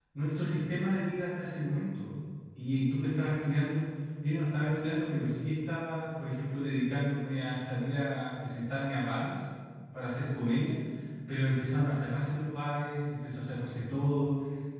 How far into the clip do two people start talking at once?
none

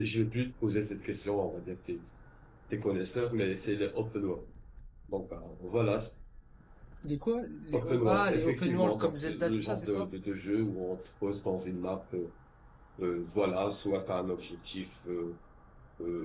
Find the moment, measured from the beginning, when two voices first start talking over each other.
7.7 s

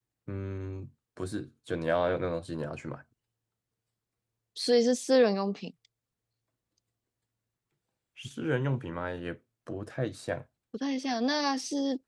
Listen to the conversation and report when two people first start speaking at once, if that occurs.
none

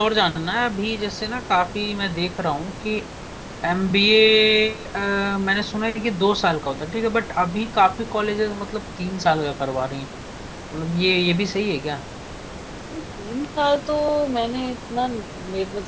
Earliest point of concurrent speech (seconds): none

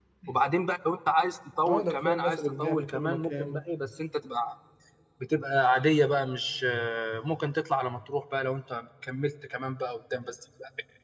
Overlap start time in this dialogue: 1.7 s

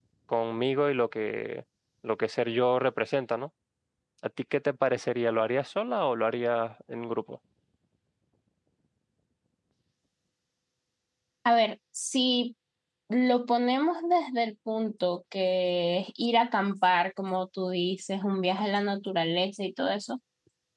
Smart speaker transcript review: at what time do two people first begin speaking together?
none

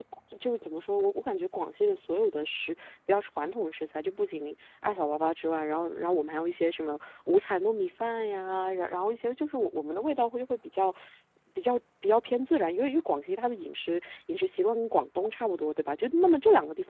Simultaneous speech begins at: none

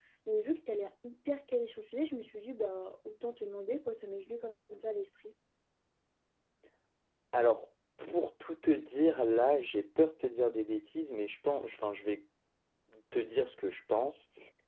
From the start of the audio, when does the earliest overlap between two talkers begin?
none

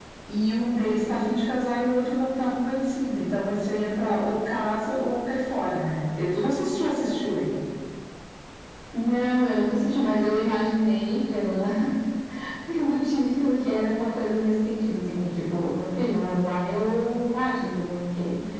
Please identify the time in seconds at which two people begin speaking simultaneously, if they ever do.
none

